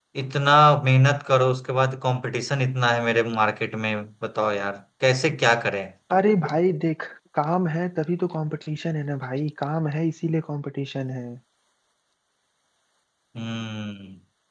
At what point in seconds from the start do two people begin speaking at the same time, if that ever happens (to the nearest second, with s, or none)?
none